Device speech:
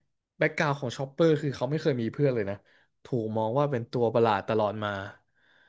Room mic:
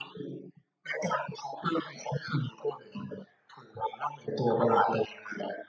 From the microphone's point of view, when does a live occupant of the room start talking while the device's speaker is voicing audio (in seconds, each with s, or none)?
none